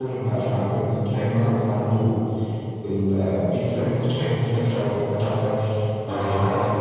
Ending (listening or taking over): taking over